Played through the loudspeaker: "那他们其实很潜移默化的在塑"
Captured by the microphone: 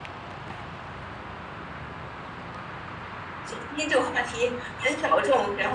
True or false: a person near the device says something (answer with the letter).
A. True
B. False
A